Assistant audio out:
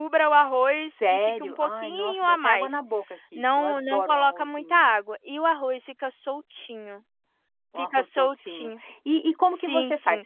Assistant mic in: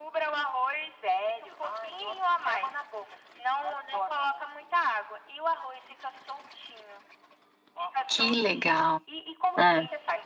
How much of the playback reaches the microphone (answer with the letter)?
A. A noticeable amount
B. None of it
A